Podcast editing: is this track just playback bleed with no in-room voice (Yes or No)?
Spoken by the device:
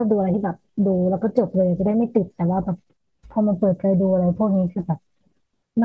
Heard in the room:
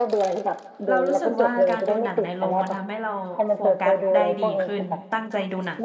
No